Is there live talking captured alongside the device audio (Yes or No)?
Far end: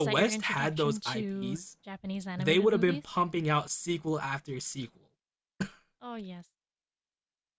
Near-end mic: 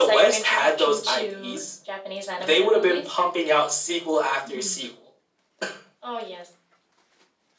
Yes